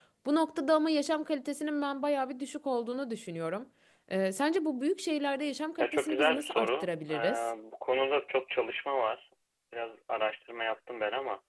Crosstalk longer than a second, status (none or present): present